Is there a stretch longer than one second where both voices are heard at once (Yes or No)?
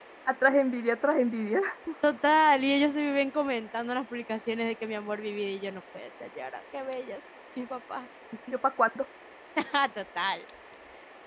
No